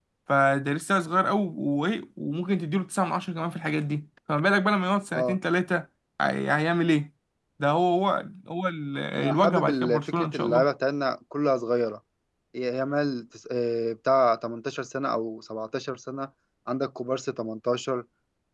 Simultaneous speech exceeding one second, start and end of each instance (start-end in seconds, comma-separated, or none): 9.2-10.7